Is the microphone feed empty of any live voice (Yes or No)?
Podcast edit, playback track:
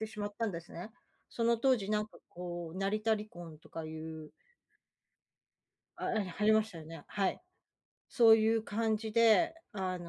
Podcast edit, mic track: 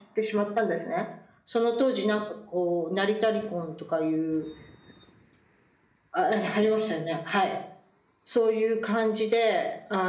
Yes